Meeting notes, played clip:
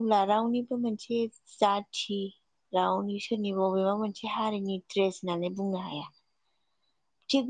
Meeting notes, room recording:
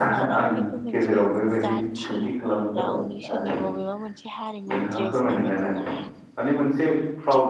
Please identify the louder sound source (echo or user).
user